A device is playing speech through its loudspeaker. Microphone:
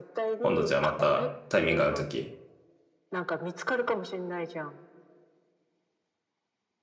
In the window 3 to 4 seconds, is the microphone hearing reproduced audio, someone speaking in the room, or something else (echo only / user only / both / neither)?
echo only